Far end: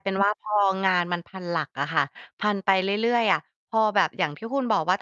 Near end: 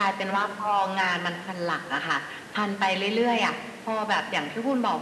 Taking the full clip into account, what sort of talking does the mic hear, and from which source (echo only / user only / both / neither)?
echo only